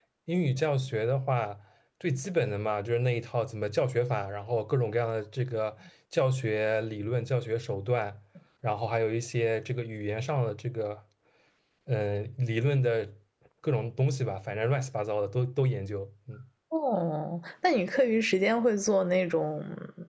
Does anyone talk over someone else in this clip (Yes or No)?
No